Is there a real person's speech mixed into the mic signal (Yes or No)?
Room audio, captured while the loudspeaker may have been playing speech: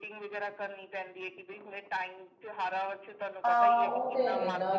Yes